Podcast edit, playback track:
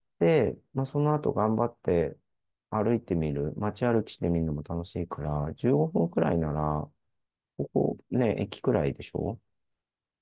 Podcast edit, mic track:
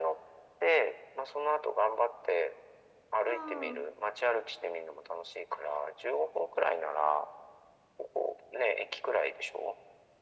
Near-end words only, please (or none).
ああ、